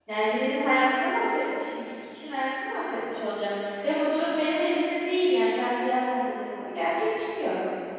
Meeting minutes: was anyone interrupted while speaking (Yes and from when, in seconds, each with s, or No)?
No